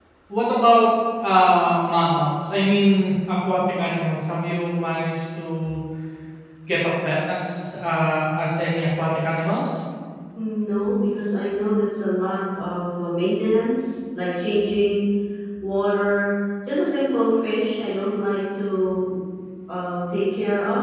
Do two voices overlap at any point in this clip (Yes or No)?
No